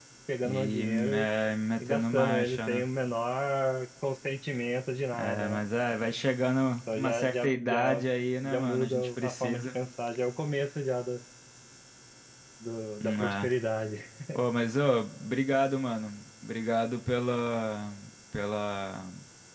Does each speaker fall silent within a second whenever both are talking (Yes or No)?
No